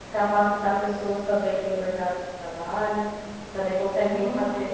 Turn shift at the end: No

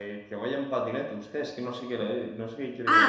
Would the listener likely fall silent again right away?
No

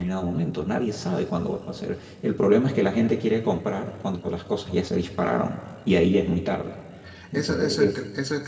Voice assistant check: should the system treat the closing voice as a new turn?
Yes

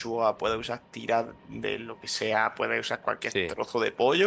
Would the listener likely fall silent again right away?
Yes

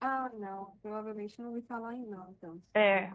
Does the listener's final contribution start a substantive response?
Yes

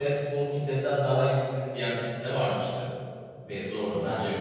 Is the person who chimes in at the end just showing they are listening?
No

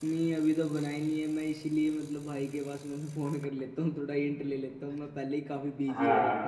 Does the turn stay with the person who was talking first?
No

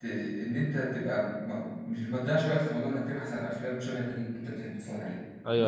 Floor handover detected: Yes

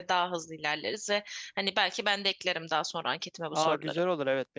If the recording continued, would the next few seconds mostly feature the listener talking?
Yes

